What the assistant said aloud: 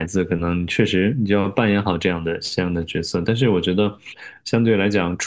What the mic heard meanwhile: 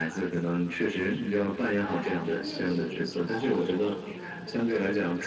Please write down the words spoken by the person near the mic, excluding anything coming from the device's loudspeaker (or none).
哎，这个电影好久好久了，就是